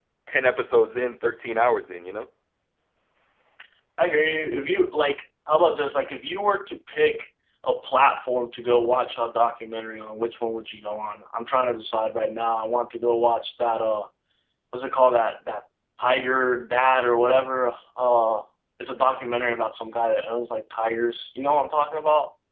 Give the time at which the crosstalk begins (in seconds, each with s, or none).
none